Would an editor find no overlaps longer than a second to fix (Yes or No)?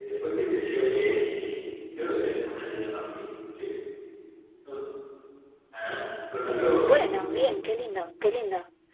Yes